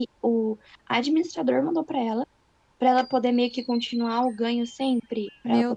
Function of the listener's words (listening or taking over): taking over